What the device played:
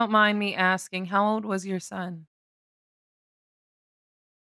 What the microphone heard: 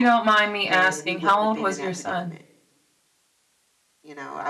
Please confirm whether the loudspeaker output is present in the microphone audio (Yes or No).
Yes